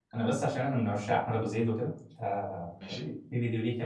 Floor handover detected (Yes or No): No